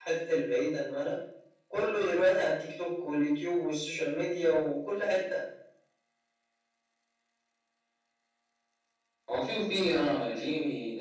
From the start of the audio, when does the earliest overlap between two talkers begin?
none

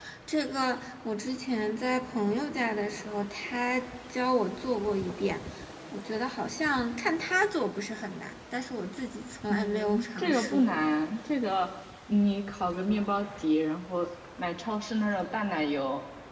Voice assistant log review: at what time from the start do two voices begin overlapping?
9.5 s

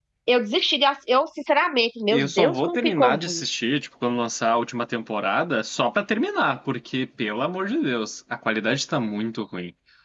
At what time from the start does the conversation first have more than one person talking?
2.1 s

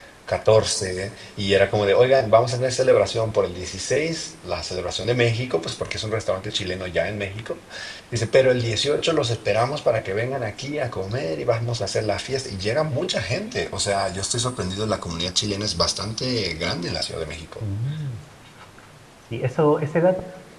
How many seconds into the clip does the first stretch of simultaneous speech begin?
none

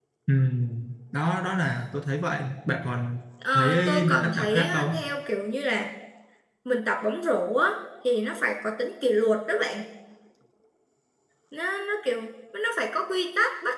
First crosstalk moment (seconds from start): 3.4 s

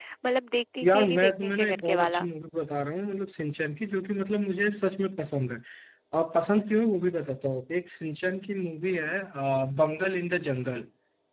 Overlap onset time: 0.8 s

